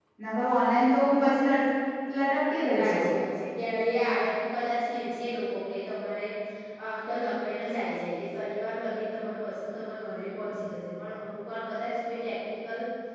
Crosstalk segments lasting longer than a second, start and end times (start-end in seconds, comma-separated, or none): none